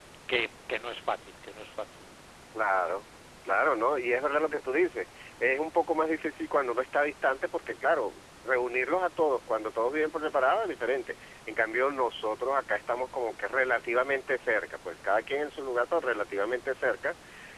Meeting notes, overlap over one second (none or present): none